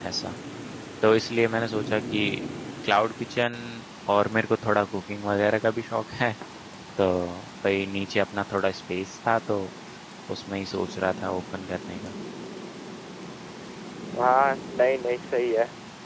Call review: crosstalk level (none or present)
none